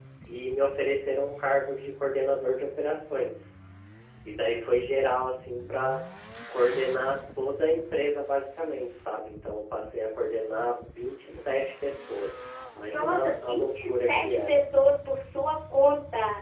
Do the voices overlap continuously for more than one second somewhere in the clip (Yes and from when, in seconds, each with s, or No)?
Yes, from 12.8 s